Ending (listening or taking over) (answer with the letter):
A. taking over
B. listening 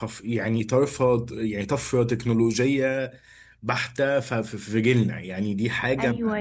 A